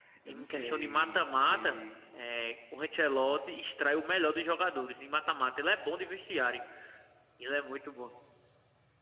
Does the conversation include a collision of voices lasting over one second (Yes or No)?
Yes